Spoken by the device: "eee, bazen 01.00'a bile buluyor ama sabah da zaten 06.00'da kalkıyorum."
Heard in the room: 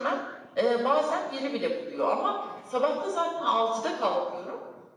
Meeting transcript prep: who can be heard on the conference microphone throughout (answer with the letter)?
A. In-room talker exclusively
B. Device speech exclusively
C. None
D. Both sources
B